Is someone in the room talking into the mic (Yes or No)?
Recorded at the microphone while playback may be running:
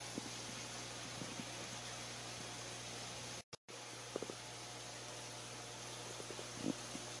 No